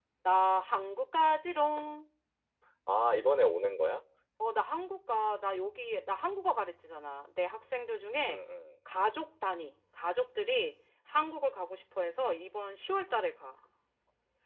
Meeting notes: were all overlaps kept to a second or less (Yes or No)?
Yes